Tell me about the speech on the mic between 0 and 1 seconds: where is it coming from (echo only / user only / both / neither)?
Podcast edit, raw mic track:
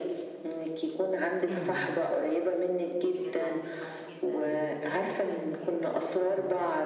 echo only